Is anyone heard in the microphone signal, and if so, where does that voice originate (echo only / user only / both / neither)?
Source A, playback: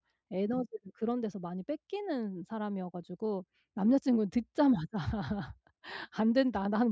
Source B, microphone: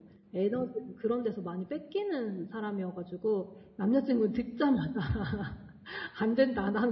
echo only